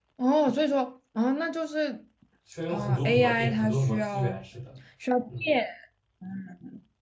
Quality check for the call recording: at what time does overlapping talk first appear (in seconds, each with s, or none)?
2.7 s